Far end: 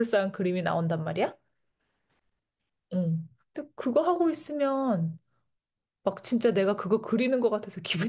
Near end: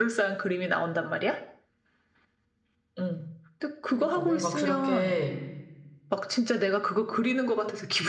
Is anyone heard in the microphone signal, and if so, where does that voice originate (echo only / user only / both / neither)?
both